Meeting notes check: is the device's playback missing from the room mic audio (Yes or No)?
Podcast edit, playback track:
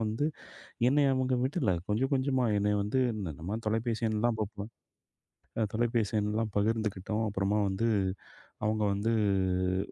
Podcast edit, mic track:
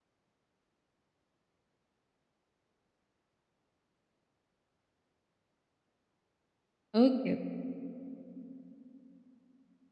Yes